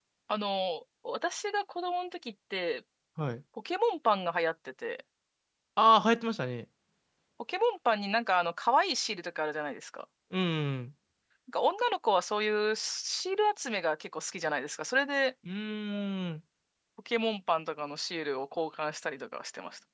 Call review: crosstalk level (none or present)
none